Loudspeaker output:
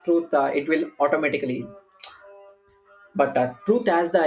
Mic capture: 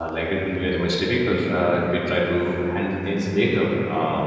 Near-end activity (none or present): present